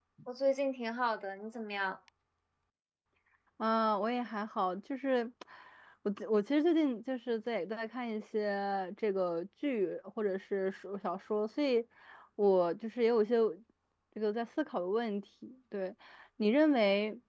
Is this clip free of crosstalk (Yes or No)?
Yes